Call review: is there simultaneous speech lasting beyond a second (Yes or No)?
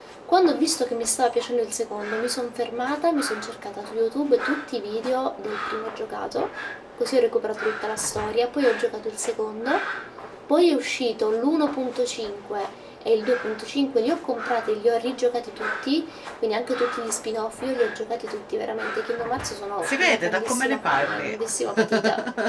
Yes